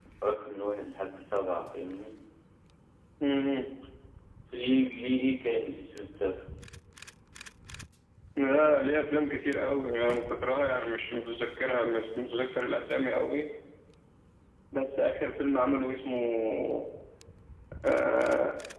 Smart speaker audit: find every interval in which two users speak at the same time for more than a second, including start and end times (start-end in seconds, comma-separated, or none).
none